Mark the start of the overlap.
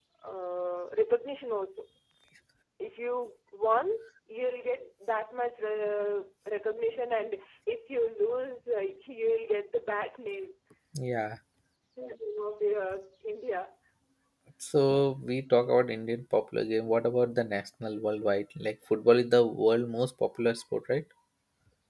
none

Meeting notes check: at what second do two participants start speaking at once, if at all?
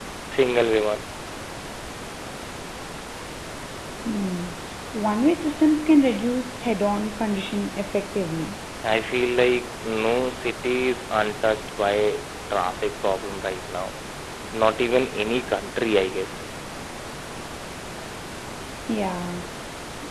none

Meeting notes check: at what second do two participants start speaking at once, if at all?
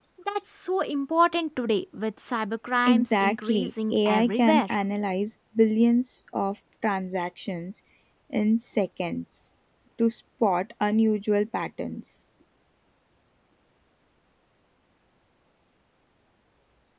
3 s

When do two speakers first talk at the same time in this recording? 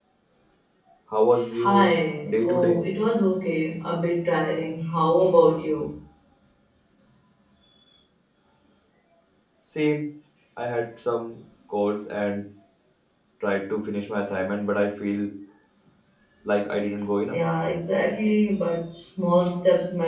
2 s

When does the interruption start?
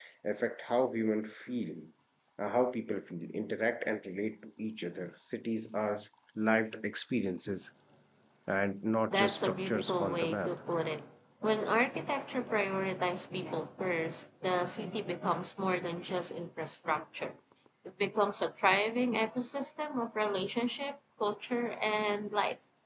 9 s

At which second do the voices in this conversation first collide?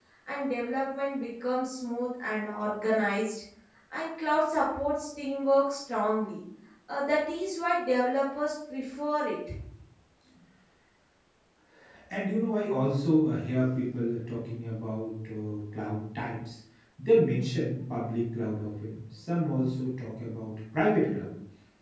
none

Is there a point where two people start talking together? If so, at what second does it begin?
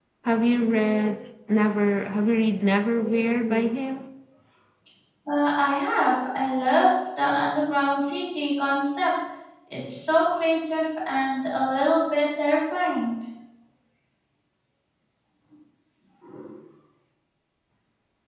none

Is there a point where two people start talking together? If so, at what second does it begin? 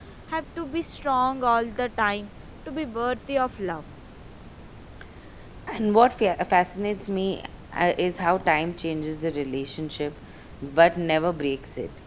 none

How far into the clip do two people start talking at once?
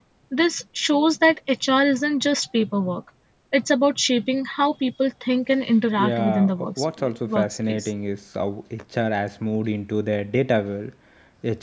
6 s

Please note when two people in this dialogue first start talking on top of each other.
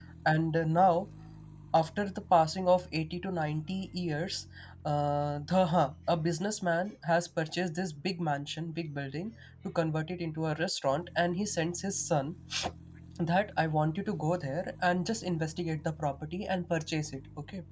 none

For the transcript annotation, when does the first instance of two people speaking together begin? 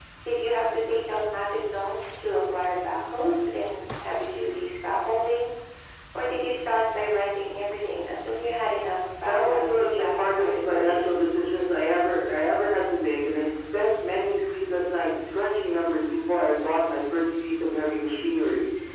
9 s

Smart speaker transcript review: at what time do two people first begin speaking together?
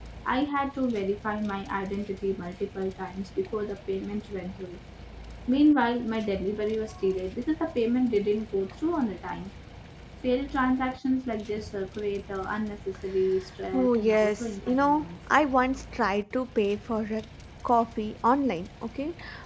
14 s

